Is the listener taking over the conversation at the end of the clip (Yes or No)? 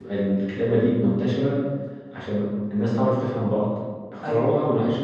No